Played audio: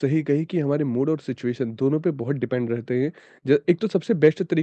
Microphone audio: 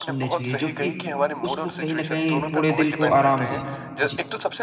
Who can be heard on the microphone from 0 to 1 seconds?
both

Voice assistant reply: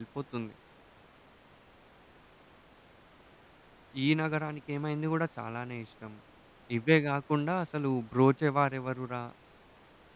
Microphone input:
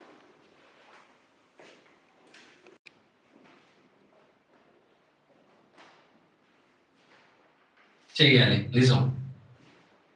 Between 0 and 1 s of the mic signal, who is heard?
neither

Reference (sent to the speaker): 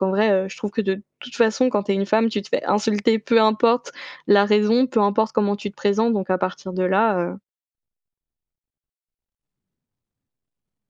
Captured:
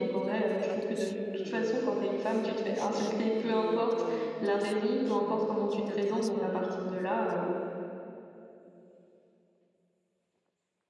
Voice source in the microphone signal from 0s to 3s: both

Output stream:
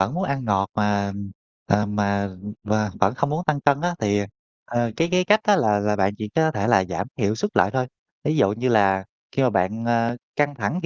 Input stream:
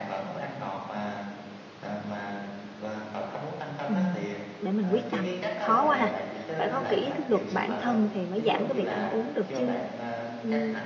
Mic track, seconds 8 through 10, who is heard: both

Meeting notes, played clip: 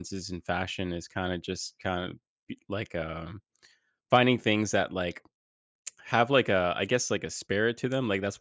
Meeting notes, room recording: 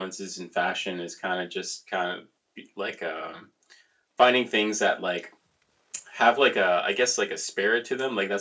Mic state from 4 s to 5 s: echo only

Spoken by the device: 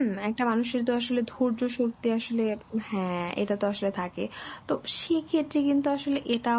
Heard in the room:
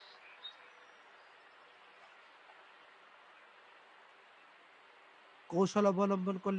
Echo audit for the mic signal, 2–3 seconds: neither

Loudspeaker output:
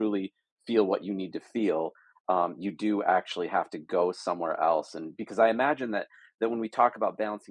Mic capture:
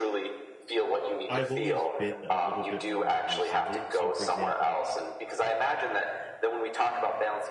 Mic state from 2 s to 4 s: both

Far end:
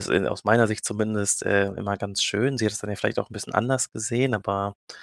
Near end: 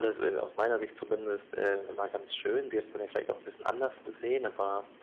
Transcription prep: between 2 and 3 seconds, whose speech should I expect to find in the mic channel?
echo only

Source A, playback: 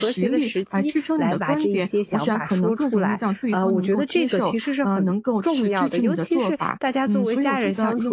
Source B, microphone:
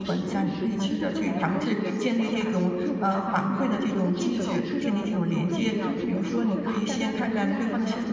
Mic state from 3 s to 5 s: both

